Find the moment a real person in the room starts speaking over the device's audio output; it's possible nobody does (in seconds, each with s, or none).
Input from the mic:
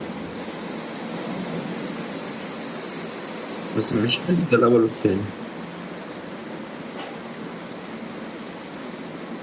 3.8 s